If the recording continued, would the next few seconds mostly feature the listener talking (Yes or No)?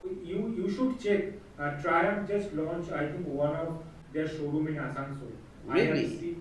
No